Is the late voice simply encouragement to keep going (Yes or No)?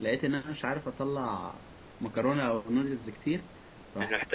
Yes